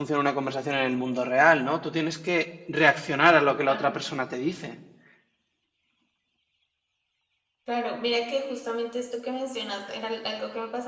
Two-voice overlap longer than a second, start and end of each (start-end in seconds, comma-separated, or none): none